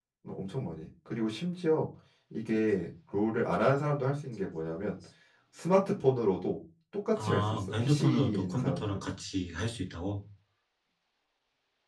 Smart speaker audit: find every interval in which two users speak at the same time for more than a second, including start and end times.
7.2-9.0

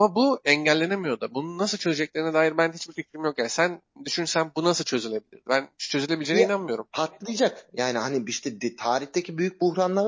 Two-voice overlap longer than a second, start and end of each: none

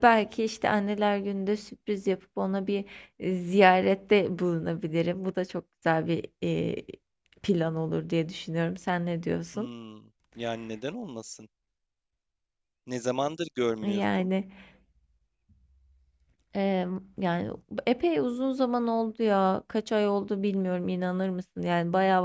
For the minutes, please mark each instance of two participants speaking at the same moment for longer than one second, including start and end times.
none

